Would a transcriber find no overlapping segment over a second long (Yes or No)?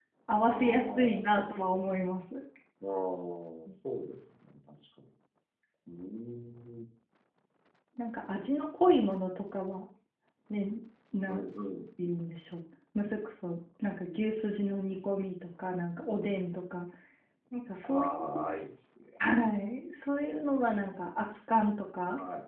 No